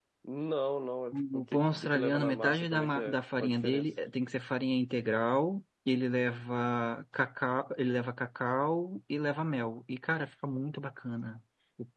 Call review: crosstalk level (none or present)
present